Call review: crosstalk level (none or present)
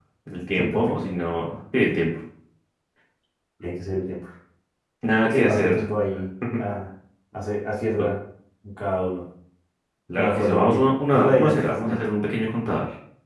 present